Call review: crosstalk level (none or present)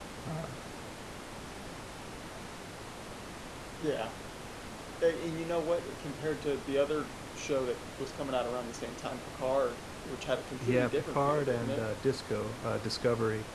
present